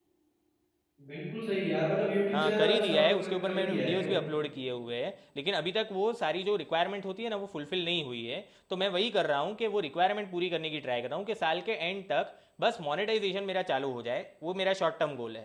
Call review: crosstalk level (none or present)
present